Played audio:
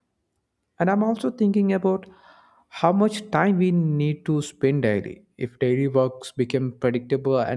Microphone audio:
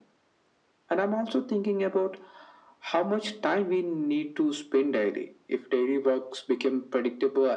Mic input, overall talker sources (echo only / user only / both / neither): echo only